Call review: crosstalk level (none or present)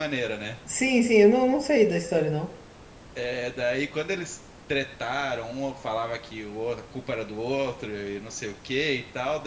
none